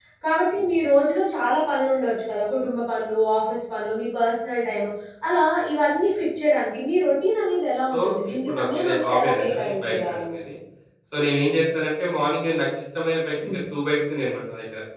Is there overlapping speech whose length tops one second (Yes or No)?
Yes